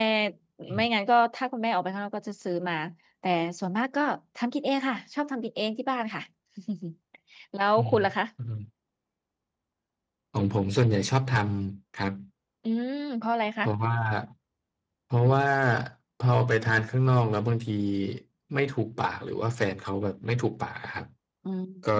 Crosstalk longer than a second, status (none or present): none